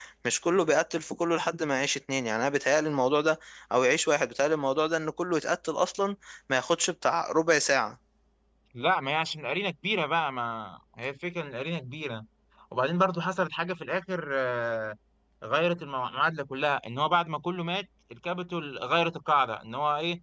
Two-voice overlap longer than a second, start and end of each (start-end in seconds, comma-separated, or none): none